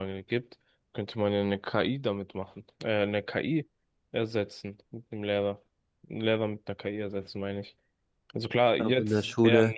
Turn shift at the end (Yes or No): Yes